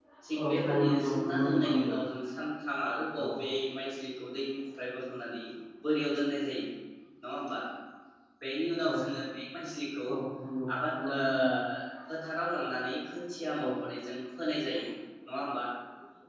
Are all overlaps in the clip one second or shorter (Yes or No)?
No